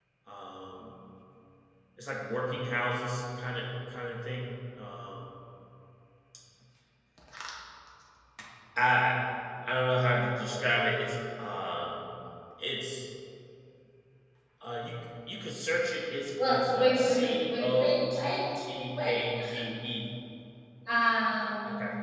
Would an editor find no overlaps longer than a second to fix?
No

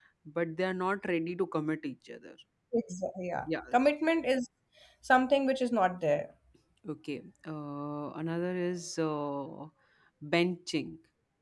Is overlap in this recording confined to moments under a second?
Yes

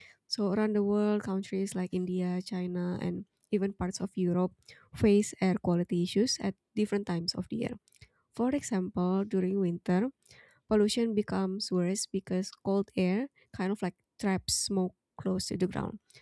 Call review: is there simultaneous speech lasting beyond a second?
No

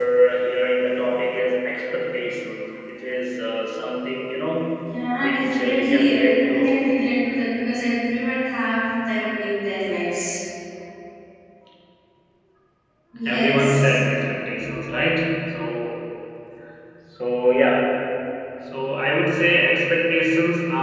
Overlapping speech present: Yes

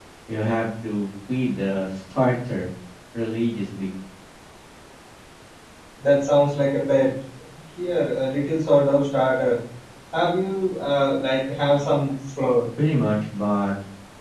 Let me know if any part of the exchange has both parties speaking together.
No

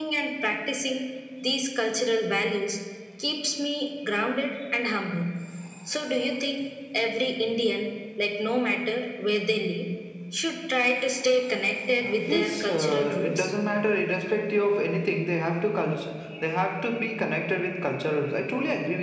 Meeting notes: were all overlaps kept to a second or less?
No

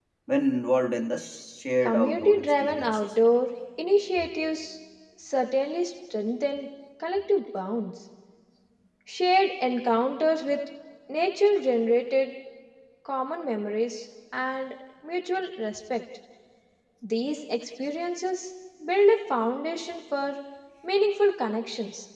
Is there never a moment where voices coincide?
No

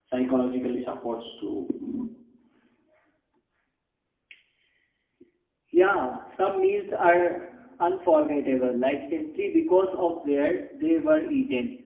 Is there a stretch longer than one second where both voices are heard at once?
No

